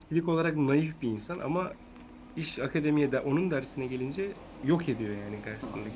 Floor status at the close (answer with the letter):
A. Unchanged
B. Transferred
B